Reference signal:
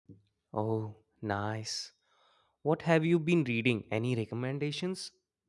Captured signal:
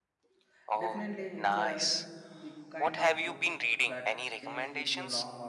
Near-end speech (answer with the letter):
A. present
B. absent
A